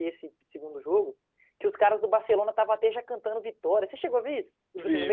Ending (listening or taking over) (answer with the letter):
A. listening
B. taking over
B